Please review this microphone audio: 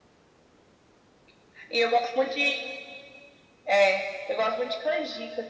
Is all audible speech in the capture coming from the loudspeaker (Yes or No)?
Yes